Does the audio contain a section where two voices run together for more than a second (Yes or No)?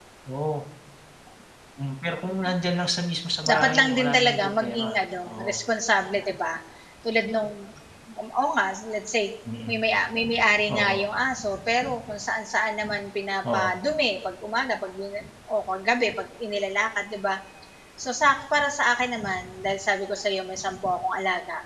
Yes